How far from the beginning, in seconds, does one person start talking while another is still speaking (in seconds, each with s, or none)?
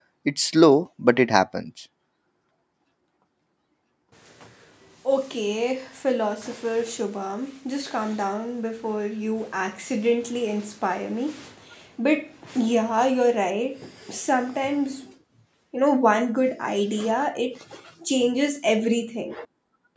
none